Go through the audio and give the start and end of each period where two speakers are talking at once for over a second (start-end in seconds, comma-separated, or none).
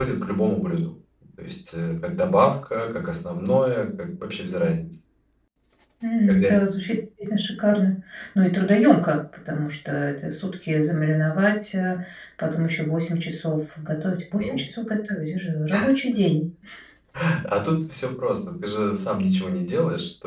none